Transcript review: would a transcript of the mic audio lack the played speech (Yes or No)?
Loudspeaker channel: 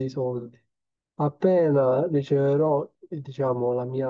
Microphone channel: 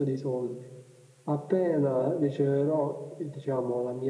No